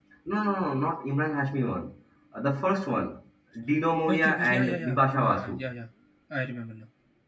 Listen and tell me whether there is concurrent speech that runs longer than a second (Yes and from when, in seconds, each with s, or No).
Yes, from 4.1 s